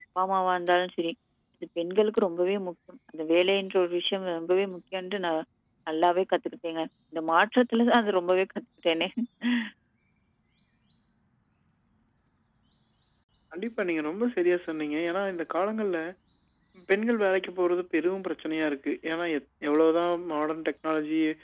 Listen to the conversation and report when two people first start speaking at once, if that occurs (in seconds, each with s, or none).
none